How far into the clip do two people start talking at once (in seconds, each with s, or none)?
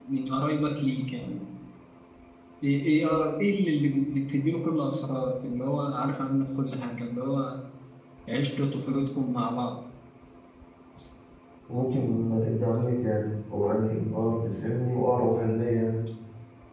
none